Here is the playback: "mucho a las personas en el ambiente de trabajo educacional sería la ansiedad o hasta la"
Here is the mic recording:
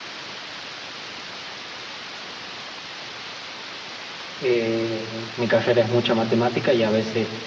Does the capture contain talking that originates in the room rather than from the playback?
Yes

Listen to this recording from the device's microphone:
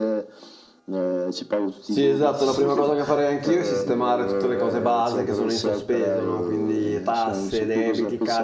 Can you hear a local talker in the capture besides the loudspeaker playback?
Yes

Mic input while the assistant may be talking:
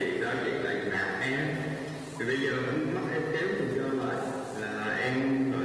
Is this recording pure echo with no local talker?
Yes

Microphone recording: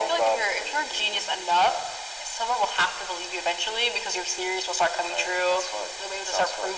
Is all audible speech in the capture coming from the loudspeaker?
Yes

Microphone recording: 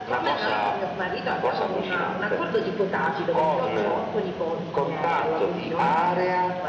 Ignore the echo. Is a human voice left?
No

